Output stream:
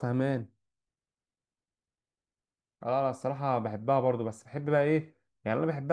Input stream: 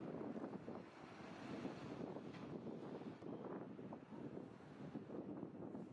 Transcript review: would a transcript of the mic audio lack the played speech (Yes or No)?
Yes